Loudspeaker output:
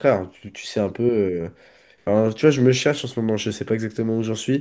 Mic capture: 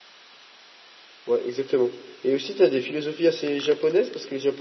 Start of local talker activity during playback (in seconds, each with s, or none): 1.3 s